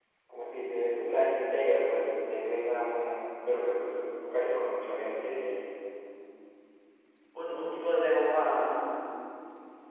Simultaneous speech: No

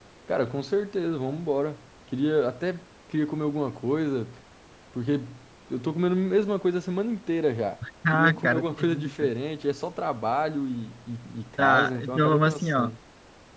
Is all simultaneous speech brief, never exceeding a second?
No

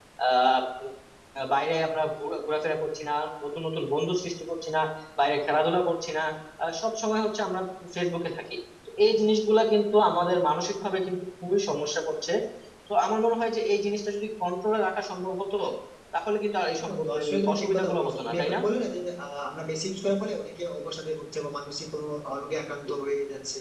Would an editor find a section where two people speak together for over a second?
Yes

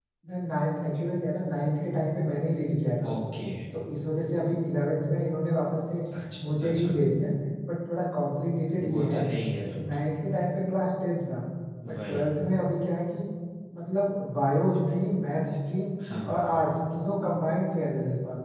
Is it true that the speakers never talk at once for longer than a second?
Yes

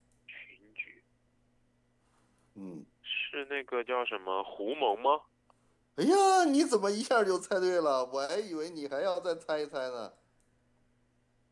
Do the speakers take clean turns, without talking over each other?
Yes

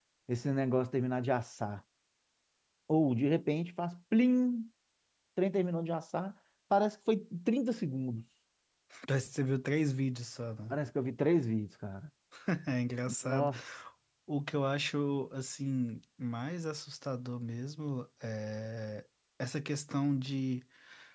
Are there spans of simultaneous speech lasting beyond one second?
No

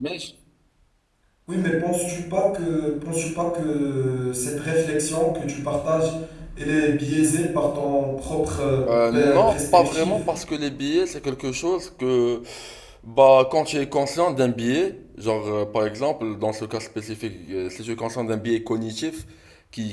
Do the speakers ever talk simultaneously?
Yes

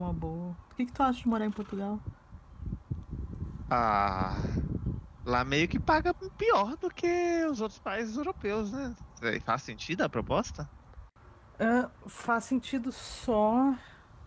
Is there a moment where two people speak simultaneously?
No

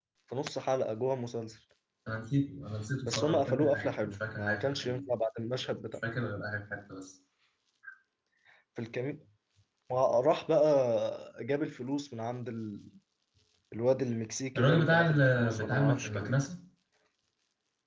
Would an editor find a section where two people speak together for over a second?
Yes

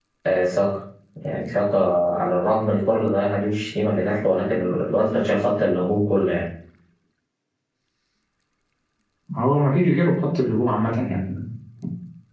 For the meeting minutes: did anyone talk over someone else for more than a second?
No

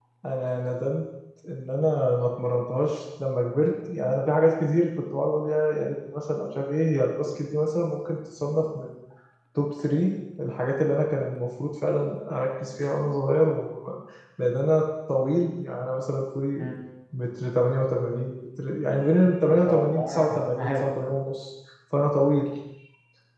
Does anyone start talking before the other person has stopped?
Yes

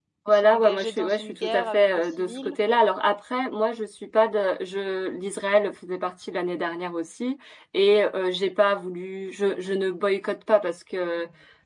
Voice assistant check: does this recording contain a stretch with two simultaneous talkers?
Yes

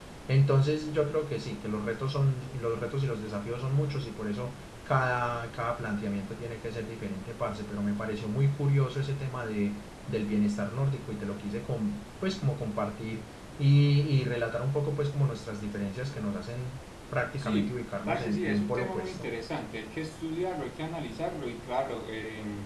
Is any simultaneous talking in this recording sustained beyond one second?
Yes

